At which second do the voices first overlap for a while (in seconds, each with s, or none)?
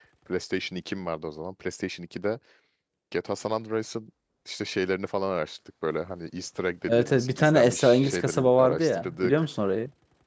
6.9 s